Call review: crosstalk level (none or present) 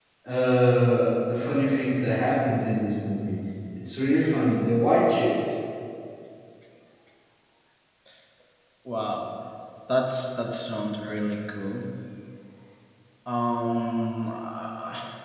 none